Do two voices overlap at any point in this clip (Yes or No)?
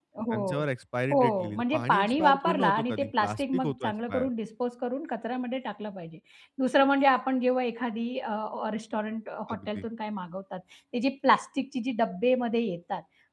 Yes